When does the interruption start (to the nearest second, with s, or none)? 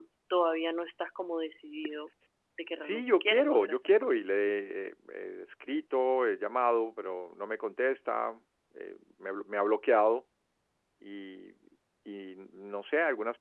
3 s